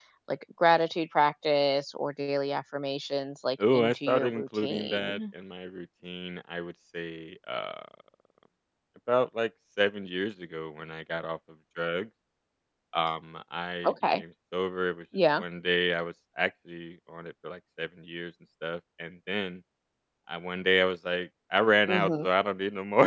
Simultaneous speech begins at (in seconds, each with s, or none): 3.7 s